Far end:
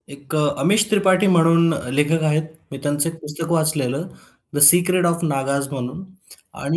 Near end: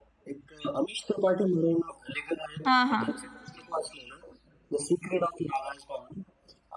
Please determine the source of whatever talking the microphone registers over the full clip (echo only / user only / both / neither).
both